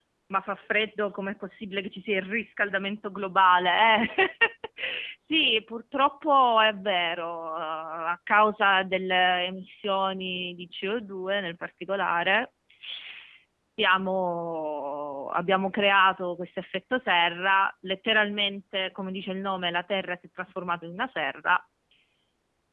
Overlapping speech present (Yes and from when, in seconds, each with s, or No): No